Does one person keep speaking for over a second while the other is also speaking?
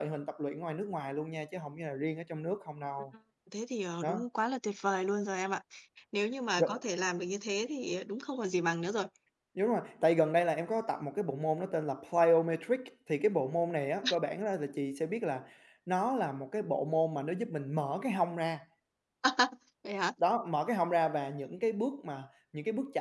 No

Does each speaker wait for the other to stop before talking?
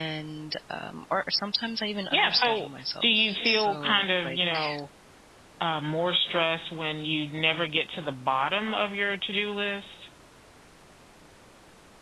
No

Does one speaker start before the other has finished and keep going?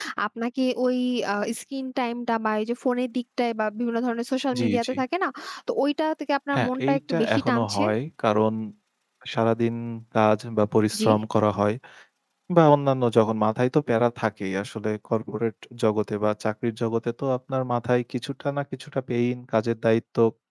Yes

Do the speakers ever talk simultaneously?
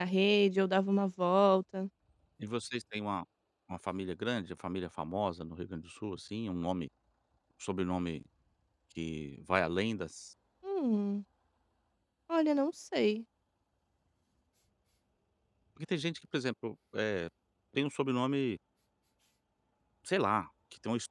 No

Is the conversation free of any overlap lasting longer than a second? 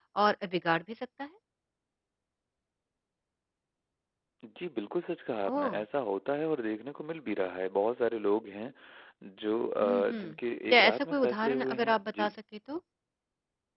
No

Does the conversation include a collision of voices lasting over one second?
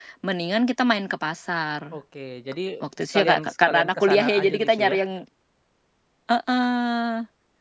Yes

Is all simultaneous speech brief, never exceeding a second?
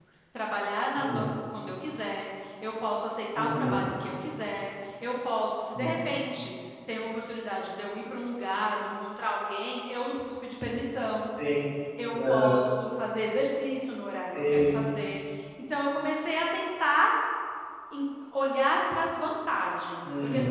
Yes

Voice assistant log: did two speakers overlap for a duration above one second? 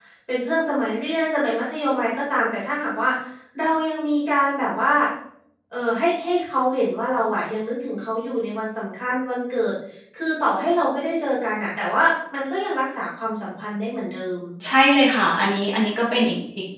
No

